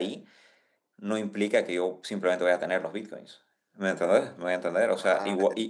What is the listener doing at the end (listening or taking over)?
listening